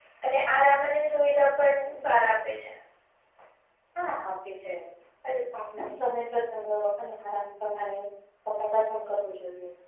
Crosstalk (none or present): none